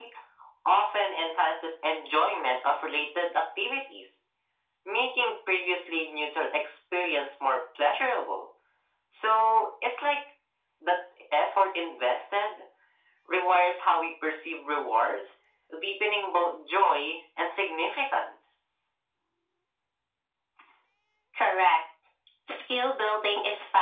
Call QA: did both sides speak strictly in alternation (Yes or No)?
Yes